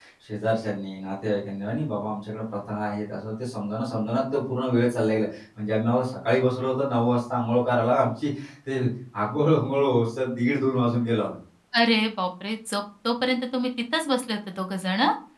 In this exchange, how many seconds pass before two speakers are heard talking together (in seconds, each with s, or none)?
none